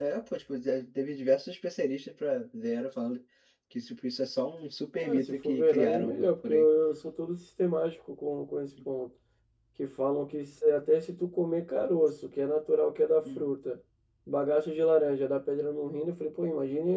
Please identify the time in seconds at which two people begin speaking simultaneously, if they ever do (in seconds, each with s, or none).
5.0 s